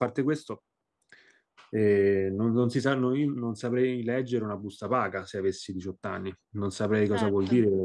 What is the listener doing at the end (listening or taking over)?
listening